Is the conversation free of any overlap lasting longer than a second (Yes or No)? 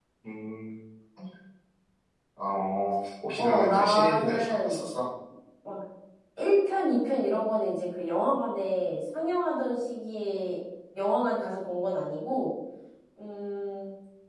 No